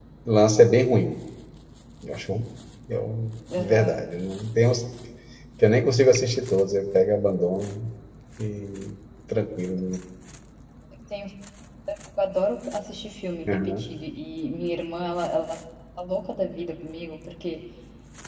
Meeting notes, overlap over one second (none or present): none